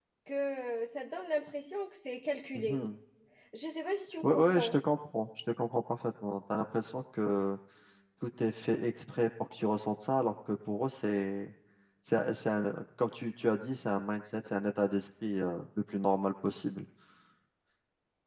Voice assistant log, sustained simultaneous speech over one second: none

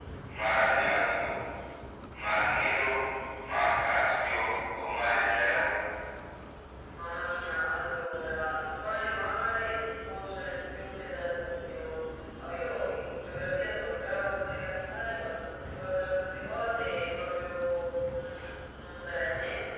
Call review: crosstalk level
none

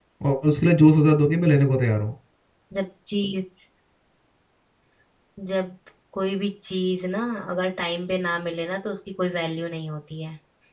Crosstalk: none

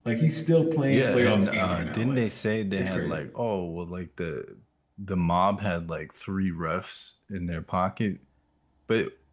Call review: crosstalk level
present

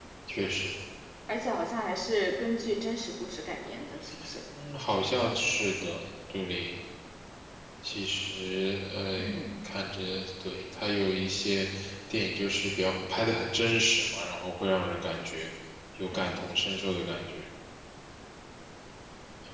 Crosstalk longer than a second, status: none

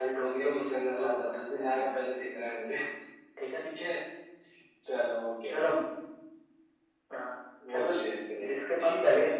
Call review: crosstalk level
present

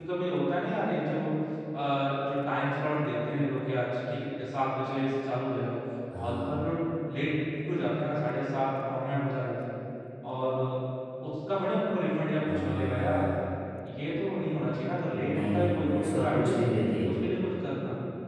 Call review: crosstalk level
present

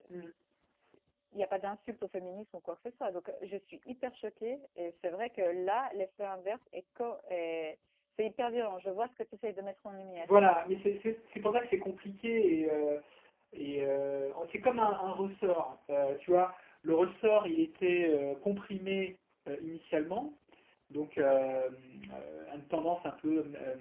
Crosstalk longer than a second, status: none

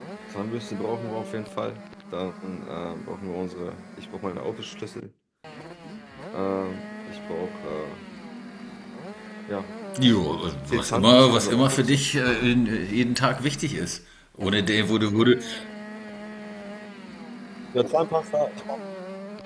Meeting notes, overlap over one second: present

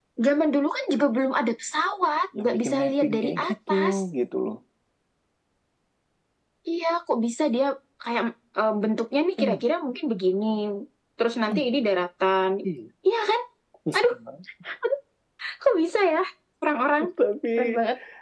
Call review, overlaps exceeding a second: present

